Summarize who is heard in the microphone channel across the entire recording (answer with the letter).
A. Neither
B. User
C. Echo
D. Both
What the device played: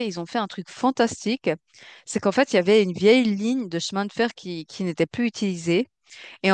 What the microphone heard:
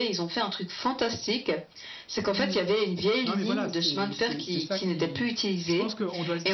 D